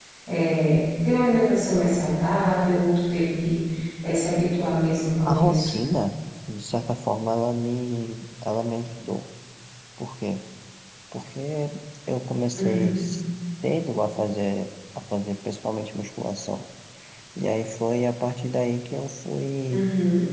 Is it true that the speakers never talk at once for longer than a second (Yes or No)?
Yes